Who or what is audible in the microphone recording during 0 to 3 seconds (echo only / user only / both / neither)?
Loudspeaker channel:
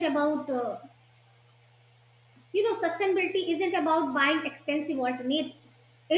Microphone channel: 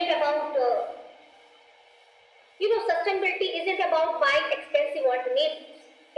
echo only